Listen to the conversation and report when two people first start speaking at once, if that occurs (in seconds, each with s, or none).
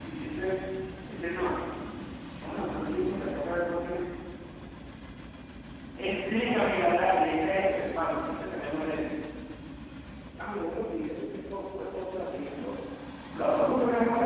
none